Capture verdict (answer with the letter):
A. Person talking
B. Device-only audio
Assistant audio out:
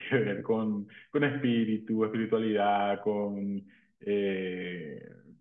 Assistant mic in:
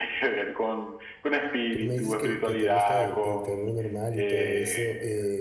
A